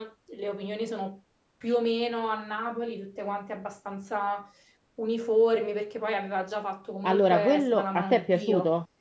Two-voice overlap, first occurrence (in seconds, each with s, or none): 7.0 s